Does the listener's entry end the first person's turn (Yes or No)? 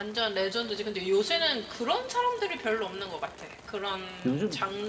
No